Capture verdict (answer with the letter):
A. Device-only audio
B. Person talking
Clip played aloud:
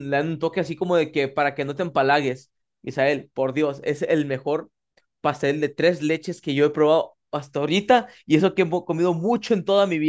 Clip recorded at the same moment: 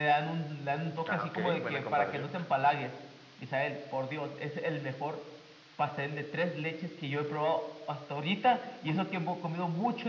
B